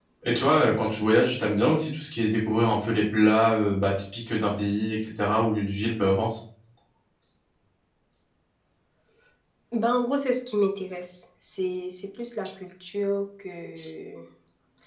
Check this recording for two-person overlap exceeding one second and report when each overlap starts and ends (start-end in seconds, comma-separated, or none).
none